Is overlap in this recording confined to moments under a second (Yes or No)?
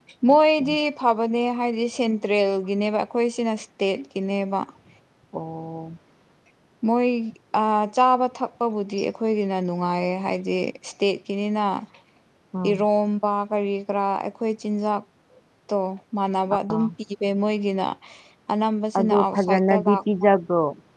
No